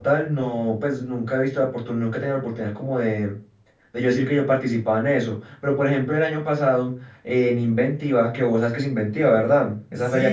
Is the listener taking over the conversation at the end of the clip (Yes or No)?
Yes